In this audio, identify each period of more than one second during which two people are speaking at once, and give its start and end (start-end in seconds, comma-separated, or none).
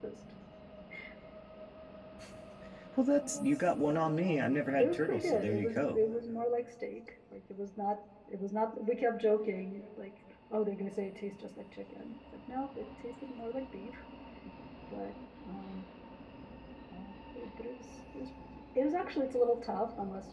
4.8-6.0